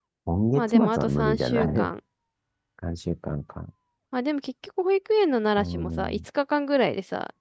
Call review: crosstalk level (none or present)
present